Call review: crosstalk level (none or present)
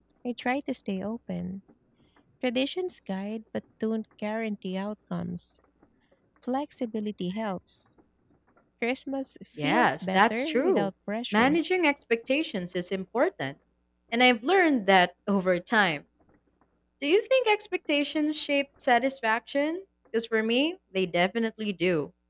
present